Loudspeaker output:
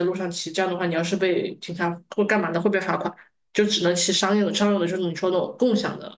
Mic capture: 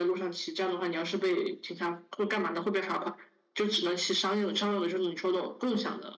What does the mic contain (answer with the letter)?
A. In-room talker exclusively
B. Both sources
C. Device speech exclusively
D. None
C